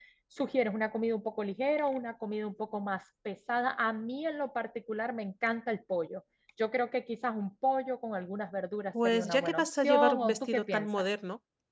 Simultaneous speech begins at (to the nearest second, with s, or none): 9 s